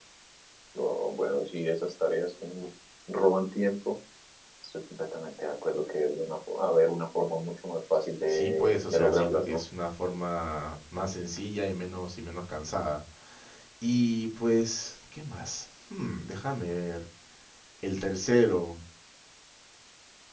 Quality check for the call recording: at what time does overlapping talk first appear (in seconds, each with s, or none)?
8.3 s